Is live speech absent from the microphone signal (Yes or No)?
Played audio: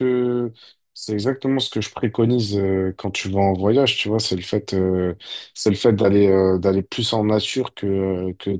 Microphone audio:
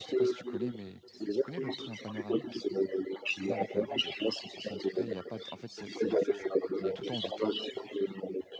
No